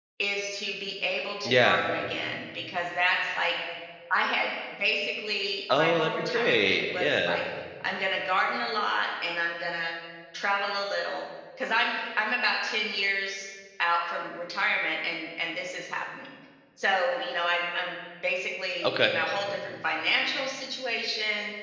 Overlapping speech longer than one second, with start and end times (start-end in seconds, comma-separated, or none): 5.7-7.4